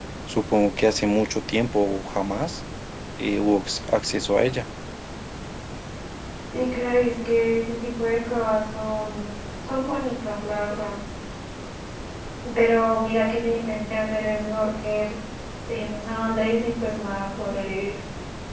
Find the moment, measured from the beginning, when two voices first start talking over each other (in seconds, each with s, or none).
none